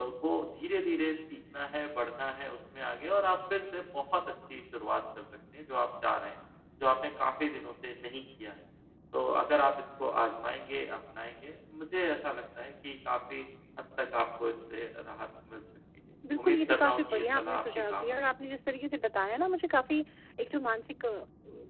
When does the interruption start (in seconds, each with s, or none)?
16.2 s